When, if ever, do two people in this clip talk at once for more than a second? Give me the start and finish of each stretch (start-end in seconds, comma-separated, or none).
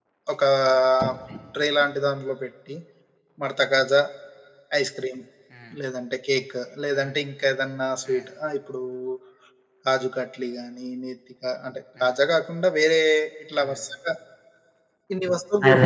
none